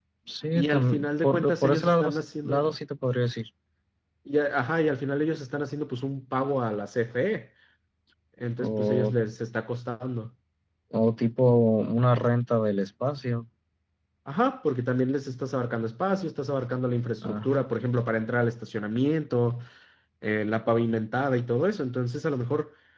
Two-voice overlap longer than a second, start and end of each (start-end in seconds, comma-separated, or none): 0.6-2.1